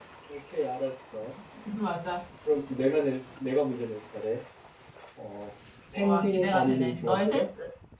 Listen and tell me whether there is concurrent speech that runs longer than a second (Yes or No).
Yes